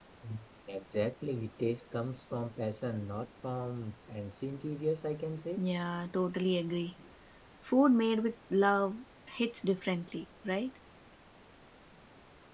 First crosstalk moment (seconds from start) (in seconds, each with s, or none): none